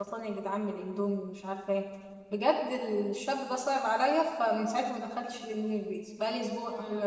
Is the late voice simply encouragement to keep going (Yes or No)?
No